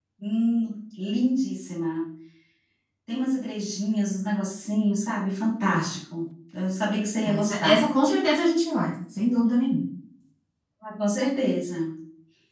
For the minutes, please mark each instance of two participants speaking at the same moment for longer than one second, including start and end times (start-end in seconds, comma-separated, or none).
none